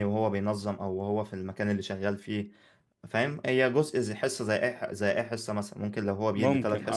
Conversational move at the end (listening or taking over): listening